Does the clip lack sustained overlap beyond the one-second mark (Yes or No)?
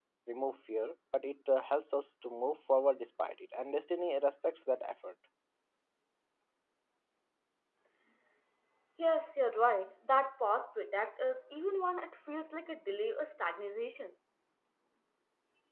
Yes